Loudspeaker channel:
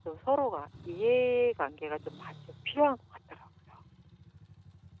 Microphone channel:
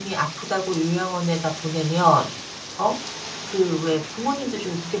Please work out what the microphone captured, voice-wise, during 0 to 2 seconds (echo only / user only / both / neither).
user only